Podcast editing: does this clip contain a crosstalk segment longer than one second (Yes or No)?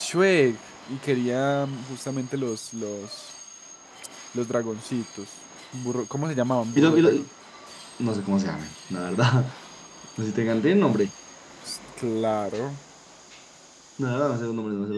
No